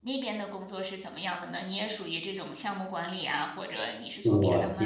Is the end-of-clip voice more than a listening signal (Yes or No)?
Yes